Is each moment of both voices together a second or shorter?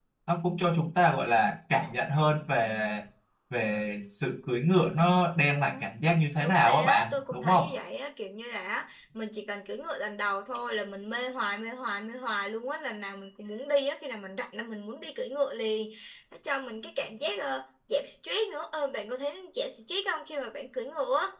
No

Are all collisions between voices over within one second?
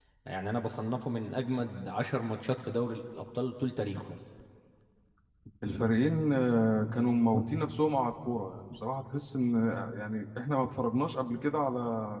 Yes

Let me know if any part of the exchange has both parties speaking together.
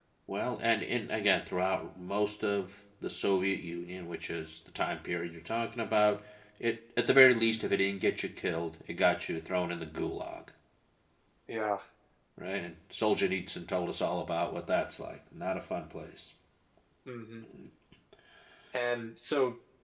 No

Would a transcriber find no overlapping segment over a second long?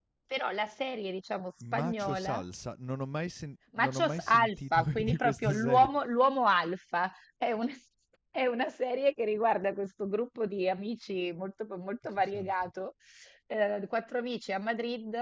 No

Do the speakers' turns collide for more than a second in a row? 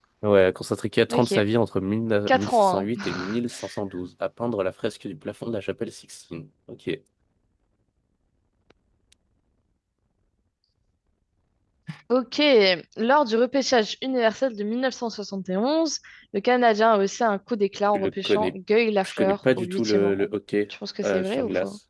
Yes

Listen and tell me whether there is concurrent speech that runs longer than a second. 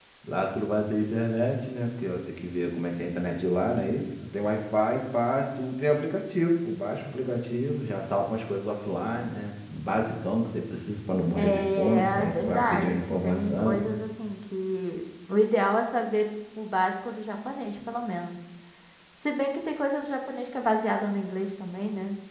Yes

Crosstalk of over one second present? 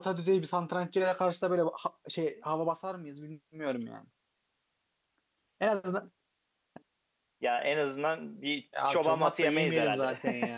Yes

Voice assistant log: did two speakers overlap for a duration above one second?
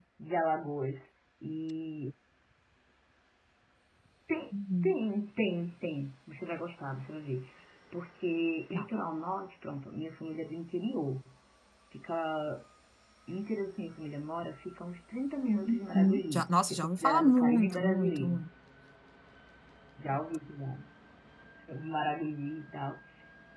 Yes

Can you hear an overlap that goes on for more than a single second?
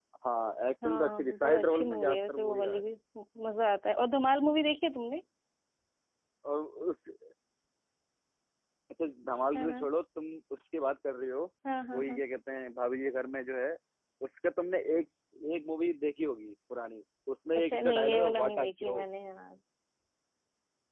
Yes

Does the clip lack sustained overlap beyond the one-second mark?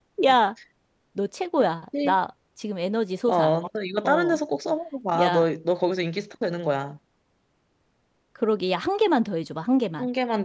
Yes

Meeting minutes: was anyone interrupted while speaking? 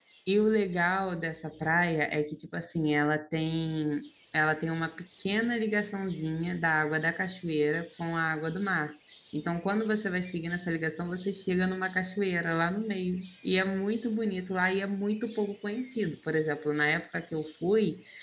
No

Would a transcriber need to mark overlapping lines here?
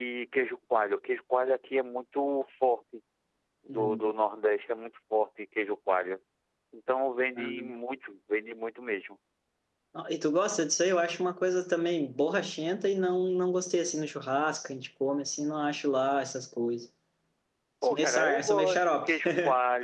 Yes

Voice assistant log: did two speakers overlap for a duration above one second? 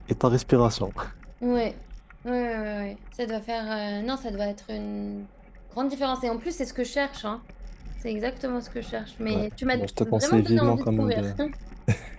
Yes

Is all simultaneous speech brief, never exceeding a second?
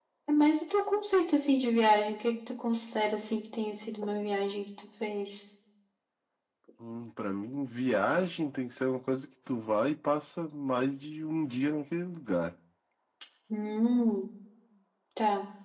Yes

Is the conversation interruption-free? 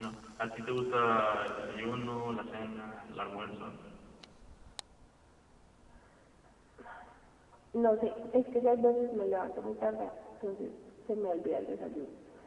Yes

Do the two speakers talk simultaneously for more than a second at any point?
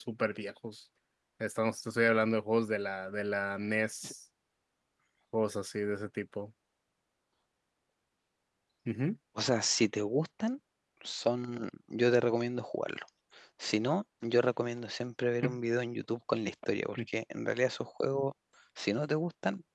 No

